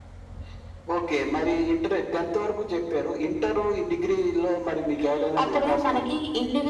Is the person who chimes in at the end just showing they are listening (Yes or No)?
No